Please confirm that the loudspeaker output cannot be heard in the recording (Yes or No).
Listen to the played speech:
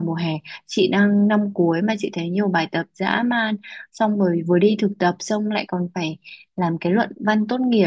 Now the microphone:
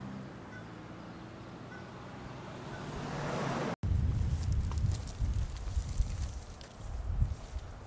Yes